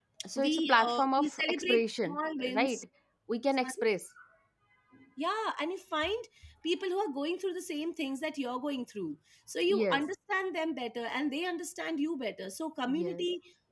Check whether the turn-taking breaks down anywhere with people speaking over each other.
Yes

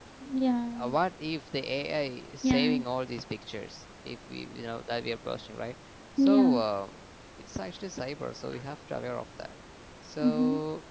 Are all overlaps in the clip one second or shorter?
Yes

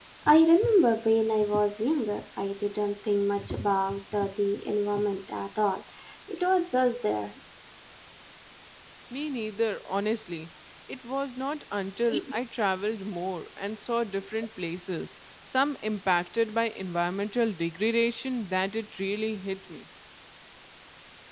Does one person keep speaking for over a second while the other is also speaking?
No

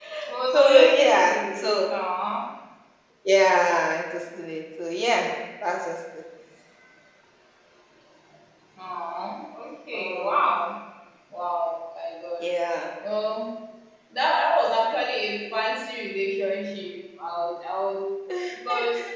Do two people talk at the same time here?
Yes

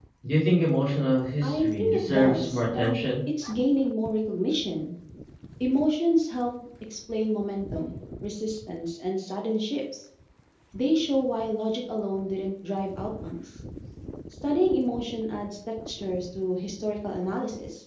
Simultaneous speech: Yes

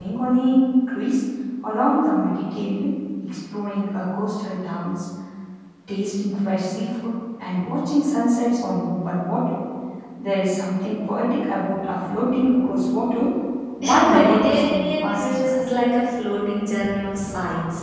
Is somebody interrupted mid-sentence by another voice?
Yes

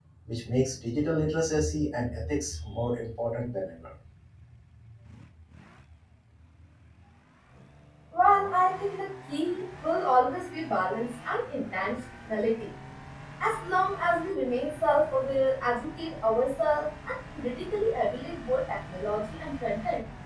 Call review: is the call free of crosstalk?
Yes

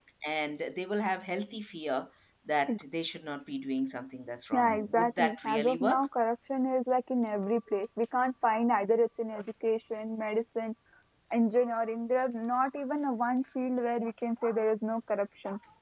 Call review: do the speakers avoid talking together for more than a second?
No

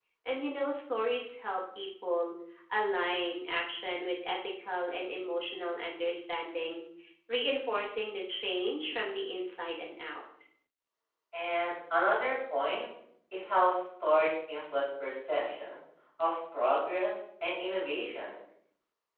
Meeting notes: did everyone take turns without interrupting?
Yes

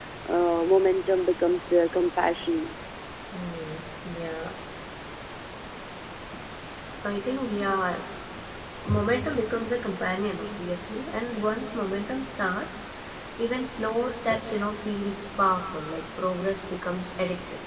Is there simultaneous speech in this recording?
No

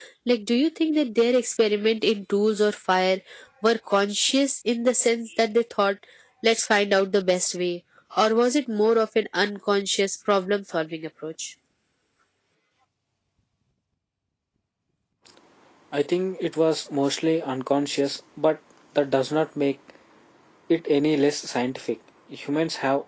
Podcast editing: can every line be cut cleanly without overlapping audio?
Yes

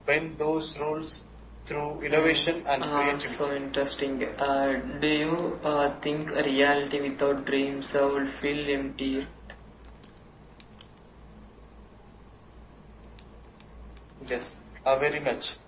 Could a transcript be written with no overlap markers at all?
No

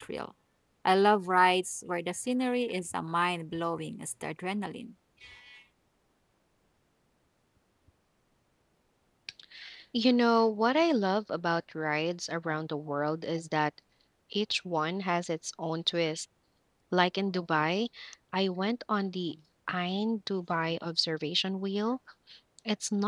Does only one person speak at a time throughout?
Yes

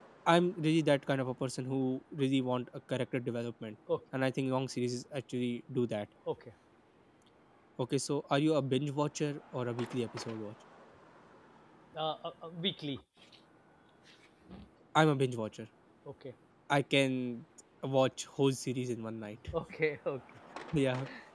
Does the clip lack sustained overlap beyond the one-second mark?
Yes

